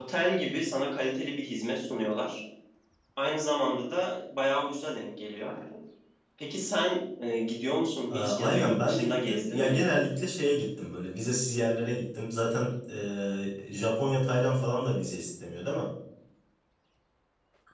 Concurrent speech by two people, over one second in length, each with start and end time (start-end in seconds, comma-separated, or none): 8.1-9.9